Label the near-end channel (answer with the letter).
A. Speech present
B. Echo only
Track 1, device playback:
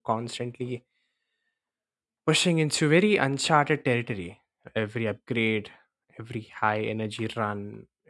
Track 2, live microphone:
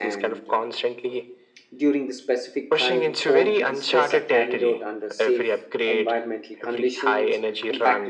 A